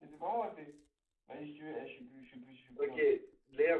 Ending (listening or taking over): taking over